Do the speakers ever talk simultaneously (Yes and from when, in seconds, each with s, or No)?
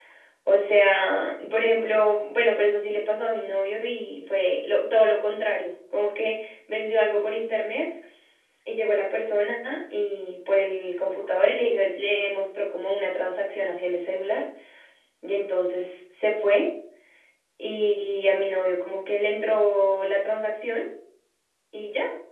No